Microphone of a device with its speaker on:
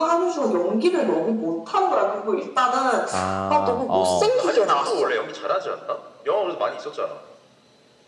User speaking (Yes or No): Yes